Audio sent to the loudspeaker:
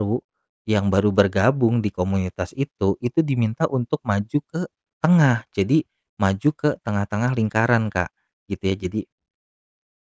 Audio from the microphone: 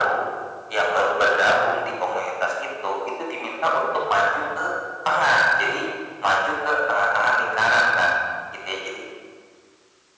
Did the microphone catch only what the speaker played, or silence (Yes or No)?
Yes